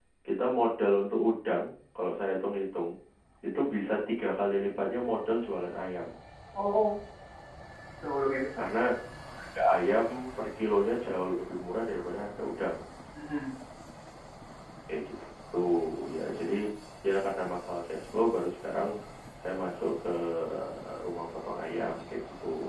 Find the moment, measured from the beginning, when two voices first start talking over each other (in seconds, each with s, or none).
none